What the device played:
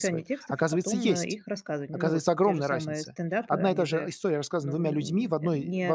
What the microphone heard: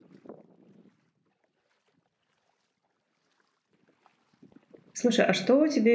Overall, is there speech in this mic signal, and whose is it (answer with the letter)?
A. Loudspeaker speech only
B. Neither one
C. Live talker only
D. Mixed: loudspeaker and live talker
C